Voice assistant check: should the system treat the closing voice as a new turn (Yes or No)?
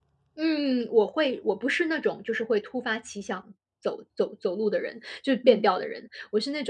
No